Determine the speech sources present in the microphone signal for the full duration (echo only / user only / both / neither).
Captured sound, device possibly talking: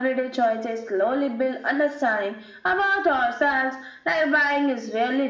echo only